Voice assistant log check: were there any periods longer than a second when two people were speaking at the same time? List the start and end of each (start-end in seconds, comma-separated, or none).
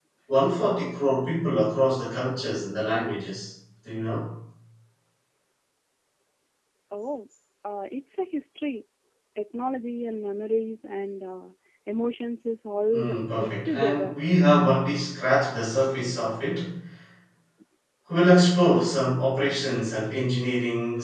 12.9-14.1